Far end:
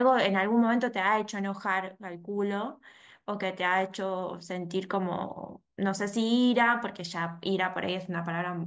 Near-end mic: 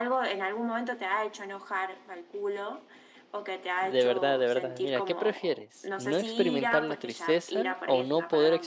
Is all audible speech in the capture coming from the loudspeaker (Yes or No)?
No